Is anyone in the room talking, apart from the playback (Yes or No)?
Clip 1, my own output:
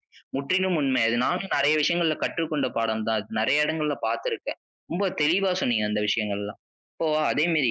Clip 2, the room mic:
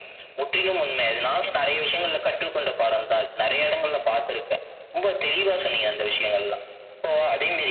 No